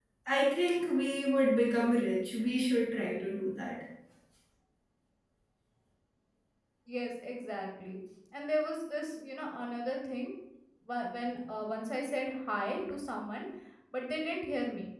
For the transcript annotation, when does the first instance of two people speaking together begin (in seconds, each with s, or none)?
none